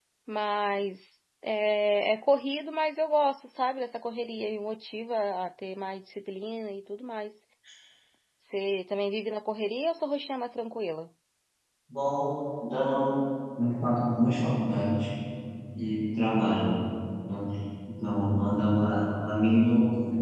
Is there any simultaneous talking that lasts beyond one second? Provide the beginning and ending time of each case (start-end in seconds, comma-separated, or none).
none